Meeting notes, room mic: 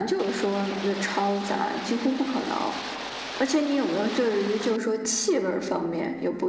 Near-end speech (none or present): none